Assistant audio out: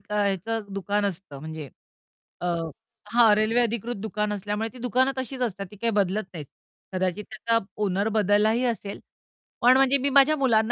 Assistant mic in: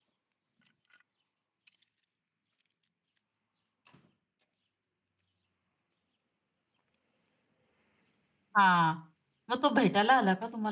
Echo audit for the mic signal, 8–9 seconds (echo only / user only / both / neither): user only